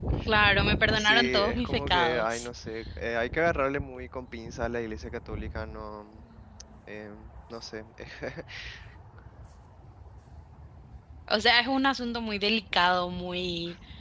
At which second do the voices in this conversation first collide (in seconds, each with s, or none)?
1.0 s